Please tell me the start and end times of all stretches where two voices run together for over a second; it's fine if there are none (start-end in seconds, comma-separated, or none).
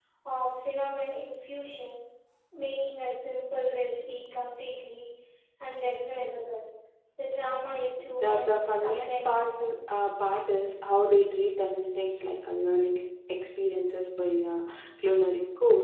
8.2-9.7